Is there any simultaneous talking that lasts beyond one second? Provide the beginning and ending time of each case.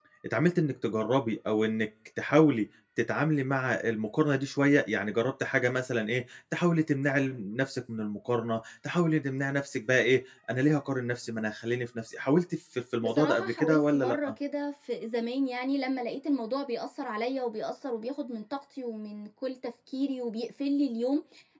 13.0-14.3

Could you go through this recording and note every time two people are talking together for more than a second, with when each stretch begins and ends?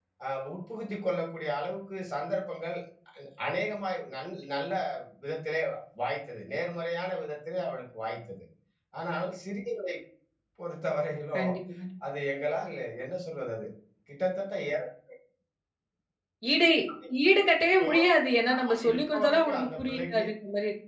18.6-20.2

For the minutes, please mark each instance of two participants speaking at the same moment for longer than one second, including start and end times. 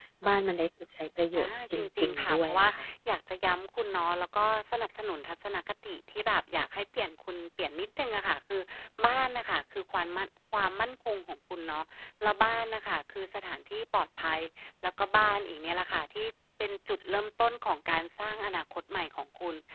1.4-2.7

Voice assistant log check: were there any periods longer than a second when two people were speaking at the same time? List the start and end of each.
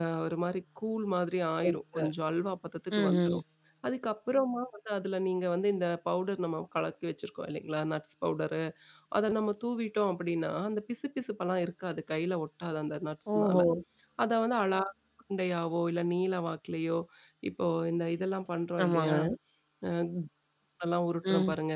none

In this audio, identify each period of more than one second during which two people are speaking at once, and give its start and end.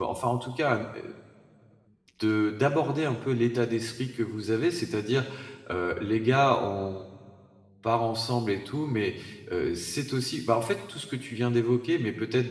none

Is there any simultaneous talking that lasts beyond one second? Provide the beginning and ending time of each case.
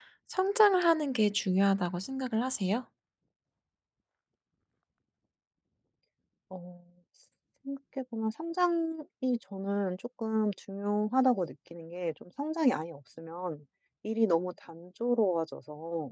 none

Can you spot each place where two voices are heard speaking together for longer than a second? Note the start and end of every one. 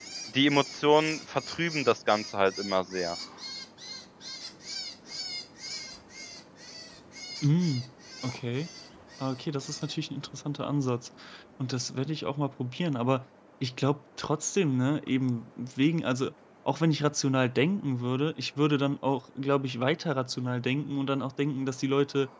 none

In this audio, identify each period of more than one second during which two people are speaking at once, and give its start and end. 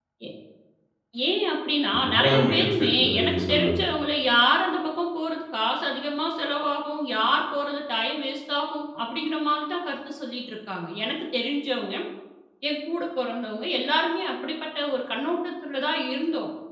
2.0-3.8

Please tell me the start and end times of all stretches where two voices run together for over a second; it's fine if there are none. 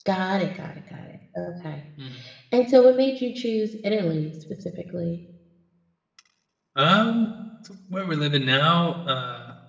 none

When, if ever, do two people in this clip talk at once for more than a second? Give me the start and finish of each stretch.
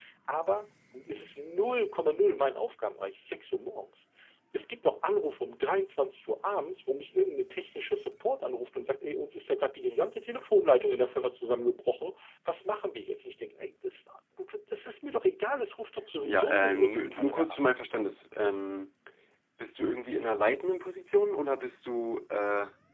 16.2-17.7

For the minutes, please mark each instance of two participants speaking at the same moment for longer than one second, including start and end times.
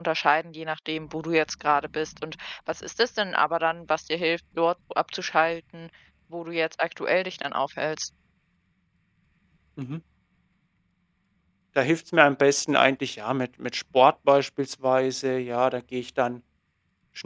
none

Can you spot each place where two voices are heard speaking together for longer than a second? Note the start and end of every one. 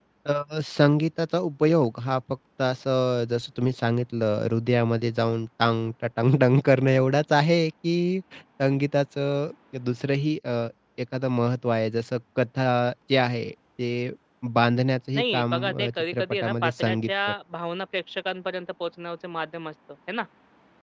15.2-17.3

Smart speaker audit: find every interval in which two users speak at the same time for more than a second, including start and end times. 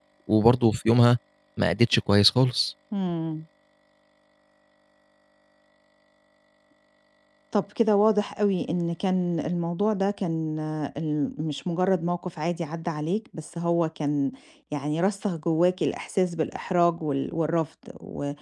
none

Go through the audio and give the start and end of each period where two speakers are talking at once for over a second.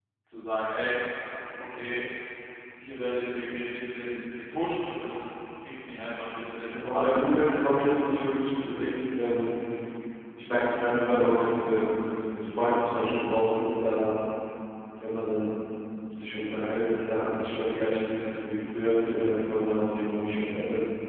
6.7-8.0

